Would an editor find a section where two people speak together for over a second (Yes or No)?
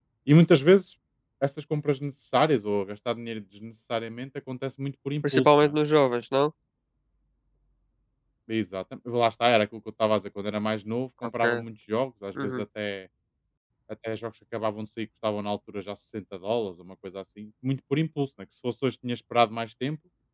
No